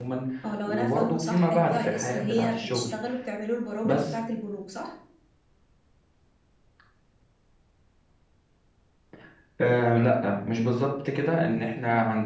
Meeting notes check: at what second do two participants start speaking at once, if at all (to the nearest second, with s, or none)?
1 s